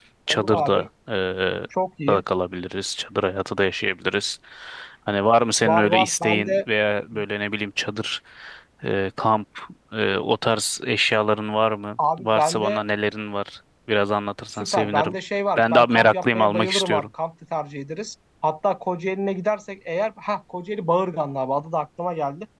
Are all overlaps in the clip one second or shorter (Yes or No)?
No